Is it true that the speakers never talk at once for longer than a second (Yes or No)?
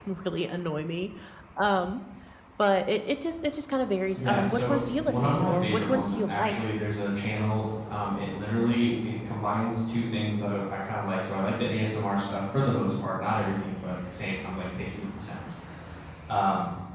No